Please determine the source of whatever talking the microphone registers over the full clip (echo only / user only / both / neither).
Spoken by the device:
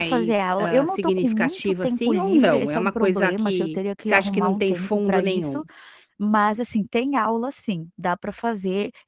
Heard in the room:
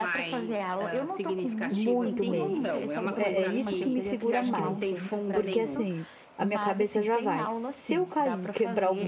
both